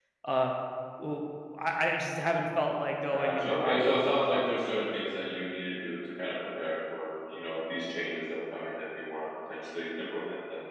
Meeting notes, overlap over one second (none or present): present